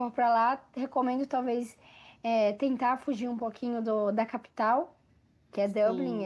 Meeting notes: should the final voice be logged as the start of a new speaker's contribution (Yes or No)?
No